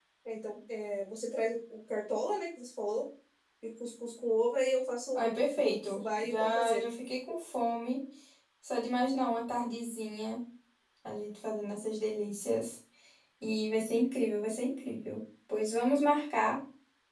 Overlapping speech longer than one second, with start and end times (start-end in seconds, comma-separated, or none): 5.1-6.9